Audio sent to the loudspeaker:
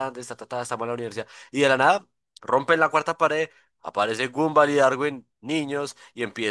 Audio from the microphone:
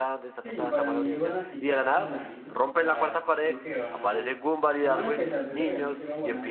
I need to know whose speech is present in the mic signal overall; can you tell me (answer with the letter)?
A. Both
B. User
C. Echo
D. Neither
A